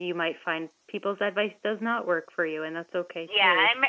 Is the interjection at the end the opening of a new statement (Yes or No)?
Yes